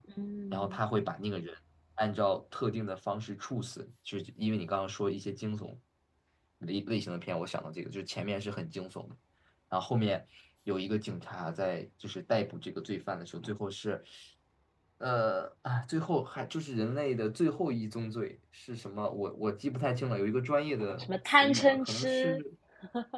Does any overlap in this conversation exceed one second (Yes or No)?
Yes